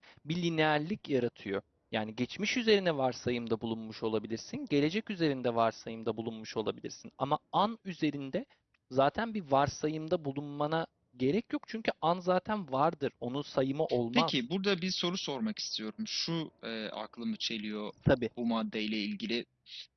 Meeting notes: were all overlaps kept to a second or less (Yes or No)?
Yes